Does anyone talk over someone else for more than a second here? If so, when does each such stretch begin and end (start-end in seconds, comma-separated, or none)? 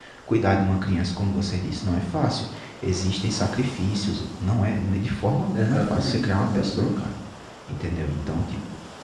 5.5-7.0